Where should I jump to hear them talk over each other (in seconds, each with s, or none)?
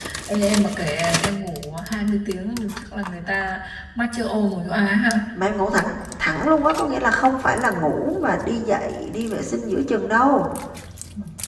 none